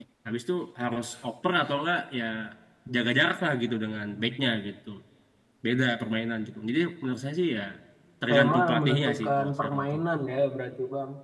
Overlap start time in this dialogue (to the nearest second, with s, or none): 8 s